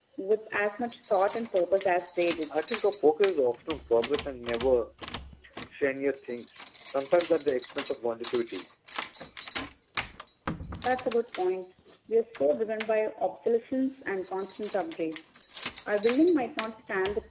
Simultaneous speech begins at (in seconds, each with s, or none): none